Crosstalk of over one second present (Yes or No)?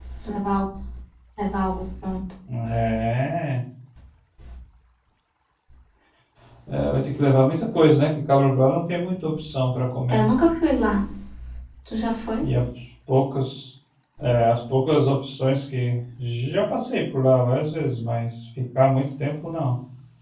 No